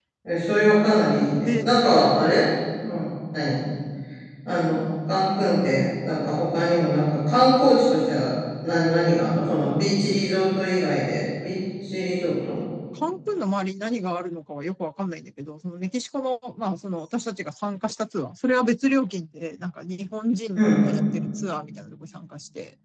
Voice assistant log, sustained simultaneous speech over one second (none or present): none